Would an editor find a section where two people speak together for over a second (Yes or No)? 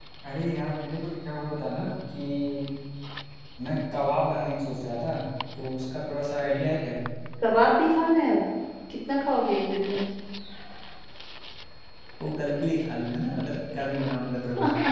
No